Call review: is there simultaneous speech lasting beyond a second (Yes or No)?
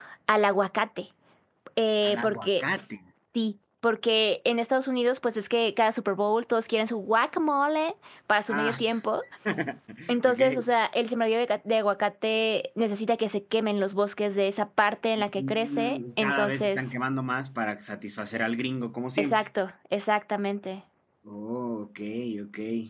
Yes